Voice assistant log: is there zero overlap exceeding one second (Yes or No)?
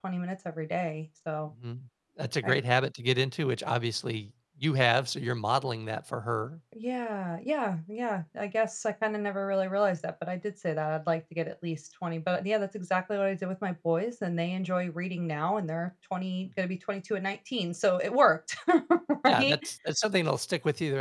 Yes